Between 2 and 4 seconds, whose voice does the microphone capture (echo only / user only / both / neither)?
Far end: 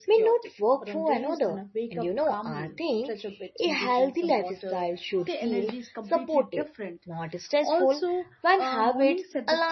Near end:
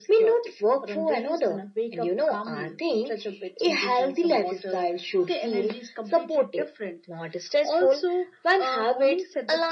echo only